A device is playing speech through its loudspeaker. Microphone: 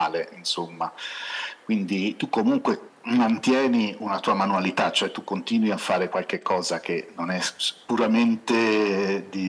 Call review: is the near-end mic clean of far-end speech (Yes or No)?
No